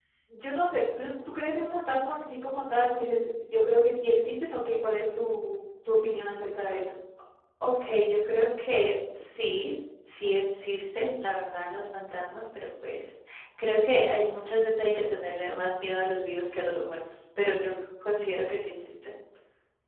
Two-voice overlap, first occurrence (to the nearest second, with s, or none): none